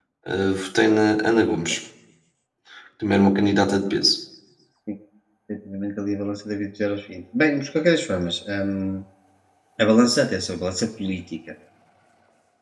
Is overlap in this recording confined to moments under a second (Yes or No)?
Yes